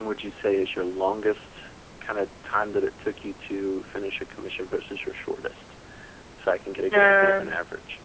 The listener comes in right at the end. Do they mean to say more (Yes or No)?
Yes